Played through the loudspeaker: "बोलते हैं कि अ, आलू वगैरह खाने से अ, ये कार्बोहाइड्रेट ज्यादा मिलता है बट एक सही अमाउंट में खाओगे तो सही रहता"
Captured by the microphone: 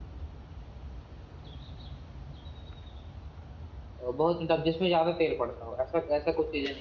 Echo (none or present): none